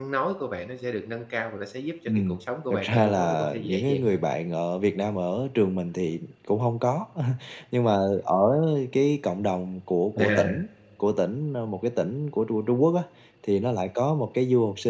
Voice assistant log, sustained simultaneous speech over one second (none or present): present